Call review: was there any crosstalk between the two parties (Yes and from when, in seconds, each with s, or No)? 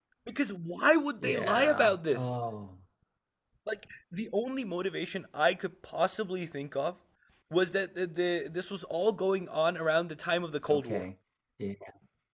Yes, from 1.2 s